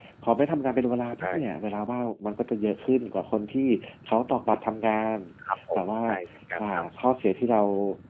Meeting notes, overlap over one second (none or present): none